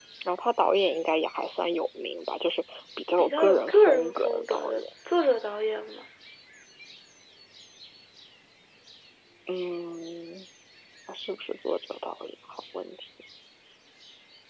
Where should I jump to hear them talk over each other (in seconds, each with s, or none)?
3.2 s